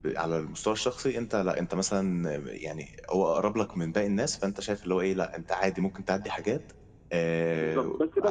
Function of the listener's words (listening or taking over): taking over